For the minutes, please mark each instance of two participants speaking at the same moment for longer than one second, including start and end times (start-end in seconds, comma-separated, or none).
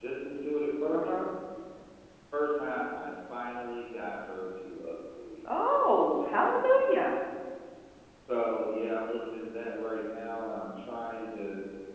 none